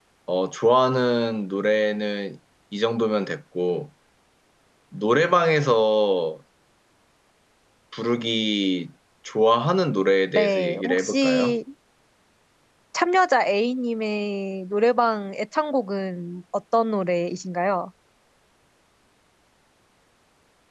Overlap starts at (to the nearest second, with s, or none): 10 s